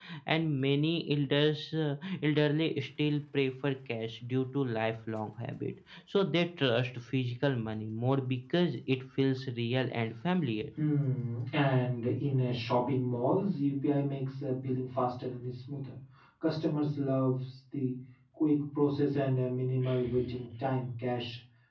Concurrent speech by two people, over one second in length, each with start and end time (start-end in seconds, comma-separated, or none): none